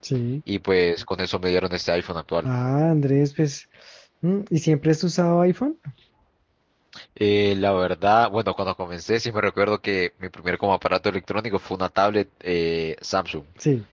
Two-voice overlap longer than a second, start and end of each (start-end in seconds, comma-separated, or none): none